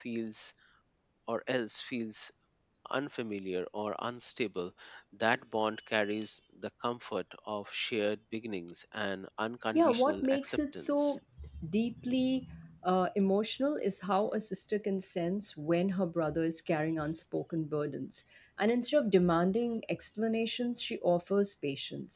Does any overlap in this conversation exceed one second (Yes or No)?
Yes